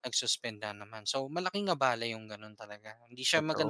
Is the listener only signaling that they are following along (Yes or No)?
Yes